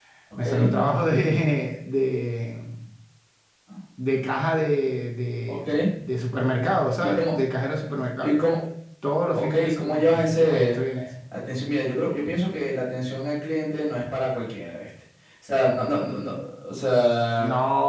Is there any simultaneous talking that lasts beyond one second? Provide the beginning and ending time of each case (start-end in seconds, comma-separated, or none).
9.3-10.8